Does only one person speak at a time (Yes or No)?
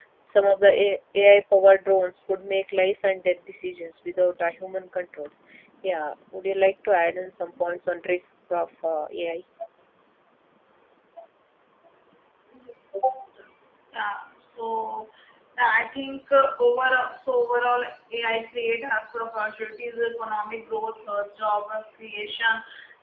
Yes